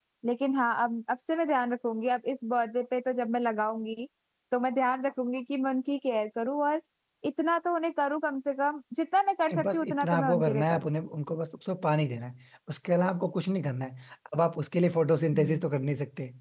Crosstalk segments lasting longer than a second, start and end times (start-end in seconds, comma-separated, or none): 9.5-10.9